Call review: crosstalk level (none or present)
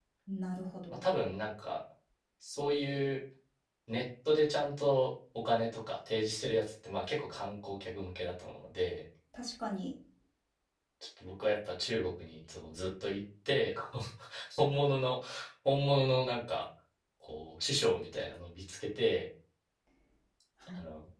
none